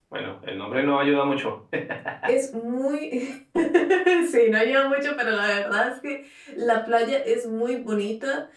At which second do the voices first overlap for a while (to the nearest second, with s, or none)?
none